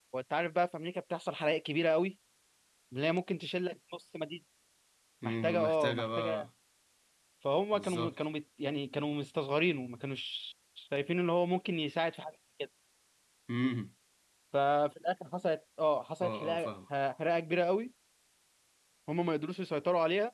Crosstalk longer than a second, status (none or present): present